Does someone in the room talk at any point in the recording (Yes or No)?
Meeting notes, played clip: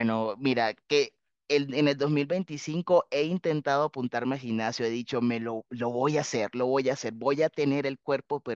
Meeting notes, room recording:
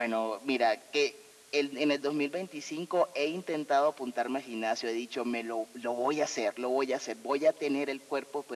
No